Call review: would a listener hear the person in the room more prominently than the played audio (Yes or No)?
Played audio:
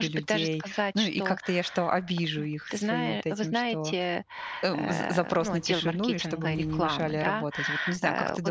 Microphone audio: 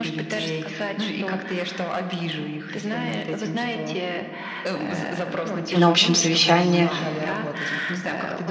Yes